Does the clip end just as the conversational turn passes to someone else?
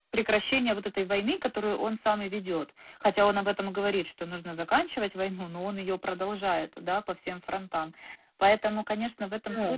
No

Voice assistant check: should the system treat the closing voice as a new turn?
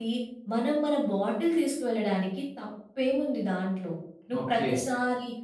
No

